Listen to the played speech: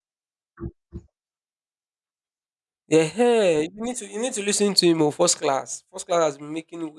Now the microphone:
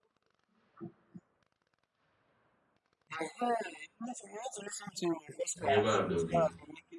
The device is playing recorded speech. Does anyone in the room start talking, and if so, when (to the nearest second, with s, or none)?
6 s